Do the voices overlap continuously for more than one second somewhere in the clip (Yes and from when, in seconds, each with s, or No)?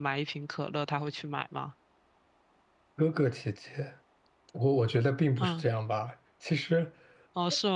No